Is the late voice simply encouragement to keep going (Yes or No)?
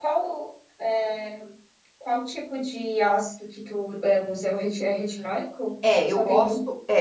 No